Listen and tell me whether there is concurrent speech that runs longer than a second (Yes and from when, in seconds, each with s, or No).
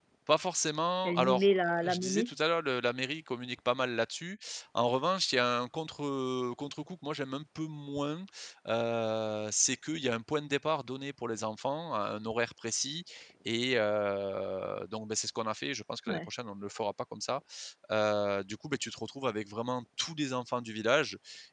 Yes, from 1.0 s